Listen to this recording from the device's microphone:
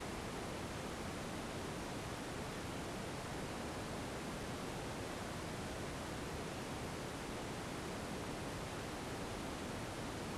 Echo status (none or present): none